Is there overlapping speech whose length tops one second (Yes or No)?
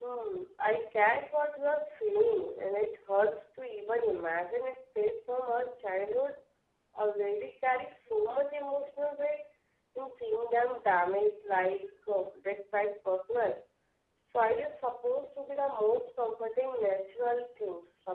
No